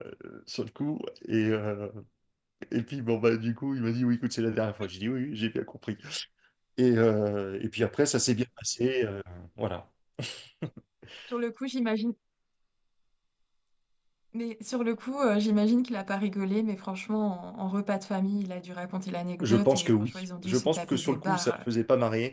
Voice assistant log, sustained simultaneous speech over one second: present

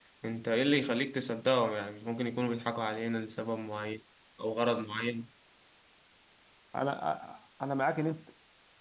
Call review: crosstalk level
none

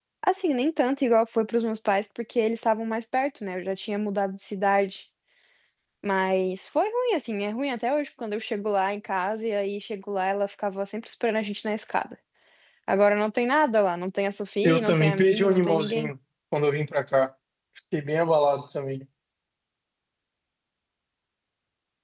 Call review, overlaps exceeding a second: present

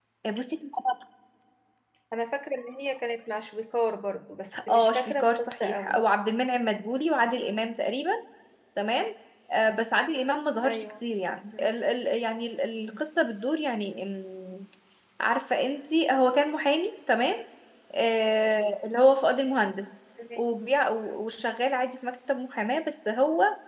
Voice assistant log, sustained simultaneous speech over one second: present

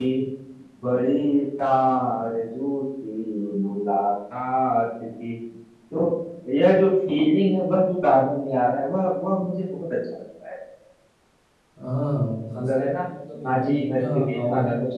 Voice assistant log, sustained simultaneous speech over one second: present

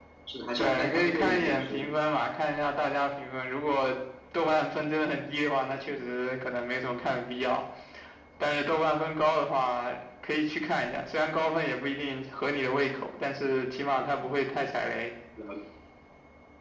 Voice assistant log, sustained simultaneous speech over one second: present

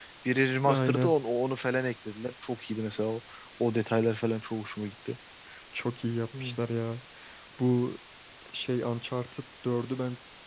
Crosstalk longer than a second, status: none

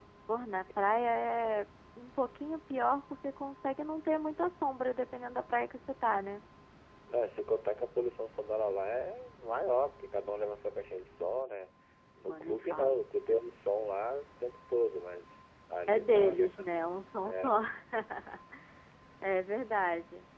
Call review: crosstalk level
present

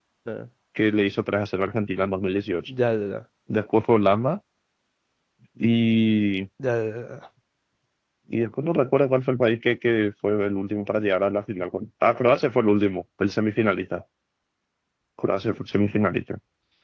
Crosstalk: none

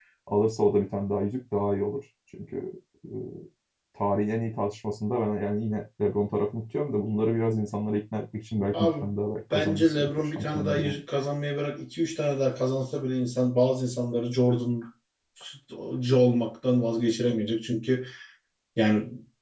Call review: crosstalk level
present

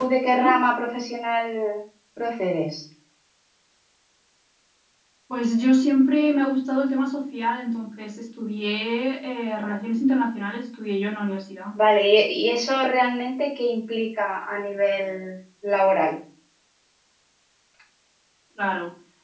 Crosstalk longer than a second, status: none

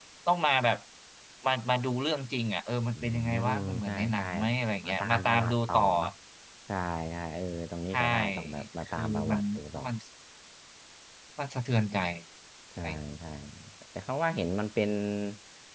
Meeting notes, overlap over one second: present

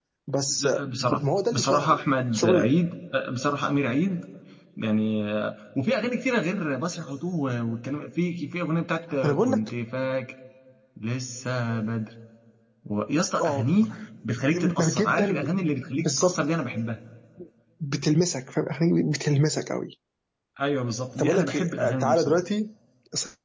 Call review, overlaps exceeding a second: present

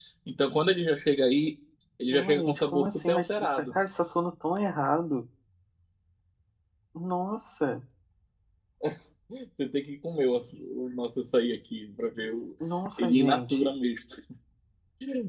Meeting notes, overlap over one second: present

